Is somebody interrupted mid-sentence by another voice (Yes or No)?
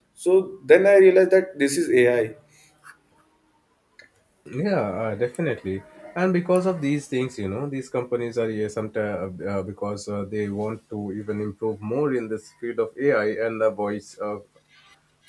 No